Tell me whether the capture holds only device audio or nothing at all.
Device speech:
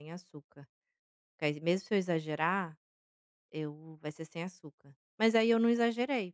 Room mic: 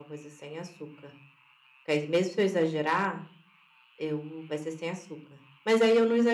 Yes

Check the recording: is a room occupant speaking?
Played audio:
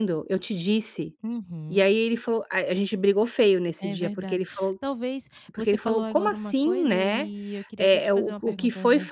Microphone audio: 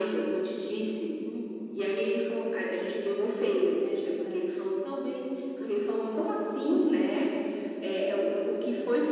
No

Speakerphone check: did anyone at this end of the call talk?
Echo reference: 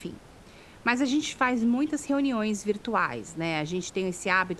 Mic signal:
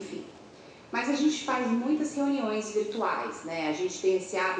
No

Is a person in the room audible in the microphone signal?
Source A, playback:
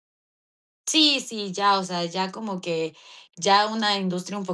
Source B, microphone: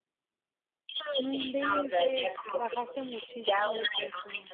Yes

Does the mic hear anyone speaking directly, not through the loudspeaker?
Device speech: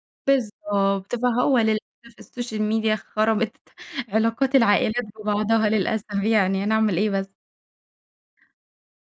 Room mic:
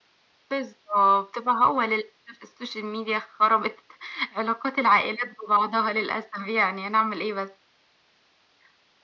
No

